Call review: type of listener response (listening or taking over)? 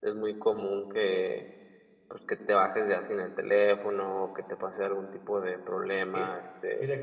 taking over